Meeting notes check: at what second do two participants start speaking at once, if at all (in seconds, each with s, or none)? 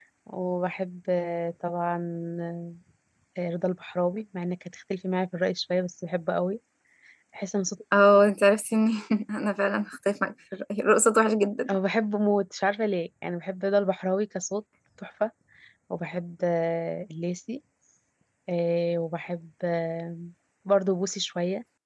none